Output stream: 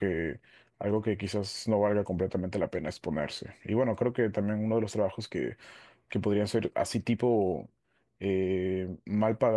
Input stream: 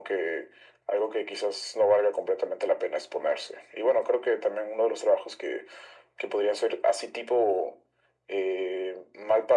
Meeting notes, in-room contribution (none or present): none